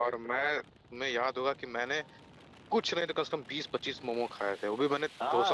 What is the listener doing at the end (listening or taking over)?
taking over